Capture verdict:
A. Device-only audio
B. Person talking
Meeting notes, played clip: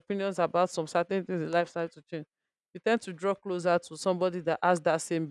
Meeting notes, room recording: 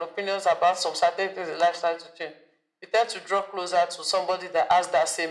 A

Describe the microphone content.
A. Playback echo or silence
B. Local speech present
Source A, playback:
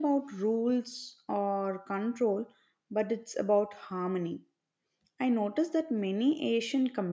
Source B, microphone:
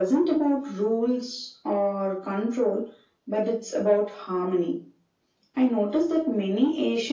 A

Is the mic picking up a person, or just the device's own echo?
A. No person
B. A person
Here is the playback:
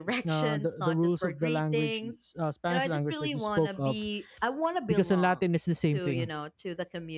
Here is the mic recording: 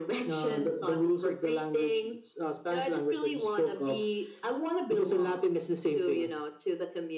A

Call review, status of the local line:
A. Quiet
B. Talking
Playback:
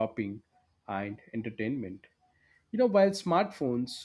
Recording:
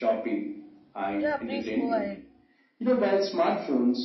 B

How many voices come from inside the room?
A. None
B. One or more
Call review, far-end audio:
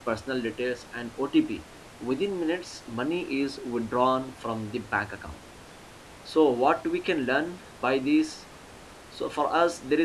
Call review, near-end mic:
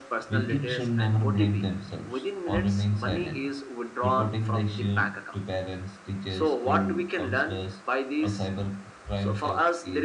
B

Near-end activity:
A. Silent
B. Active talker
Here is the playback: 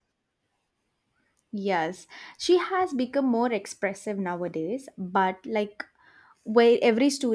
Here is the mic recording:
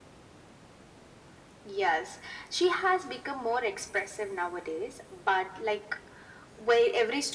A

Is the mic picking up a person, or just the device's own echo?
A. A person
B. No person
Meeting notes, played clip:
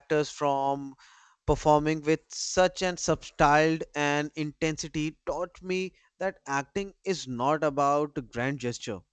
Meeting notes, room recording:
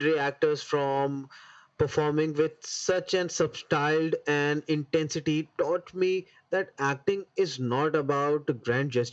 B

